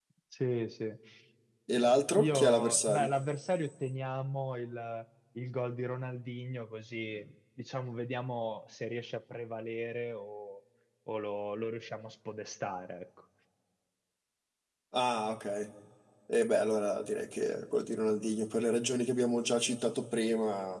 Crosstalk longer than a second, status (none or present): present